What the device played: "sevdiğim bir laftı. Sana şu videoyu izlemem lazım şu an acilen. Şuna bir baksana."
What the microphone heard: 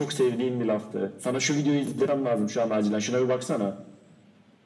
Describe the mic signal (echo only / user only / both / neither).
echo only